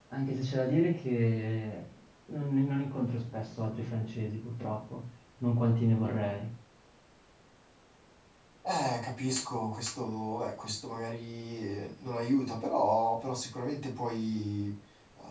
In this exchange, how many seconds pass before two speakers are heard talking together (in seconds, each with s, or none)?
none